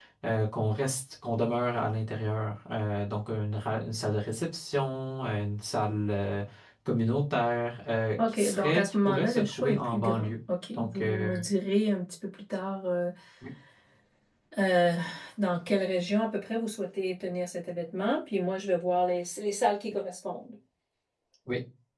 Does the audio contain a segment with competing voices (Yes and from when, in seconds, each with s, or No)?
Yes, from 8.2 s